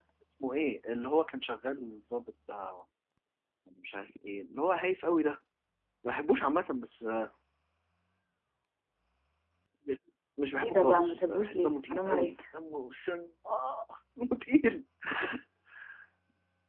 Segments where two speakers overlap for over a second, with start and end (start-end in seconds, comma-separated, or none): 10.6-12.3